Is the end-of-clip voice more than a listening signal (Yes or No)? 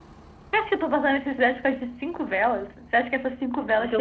Yes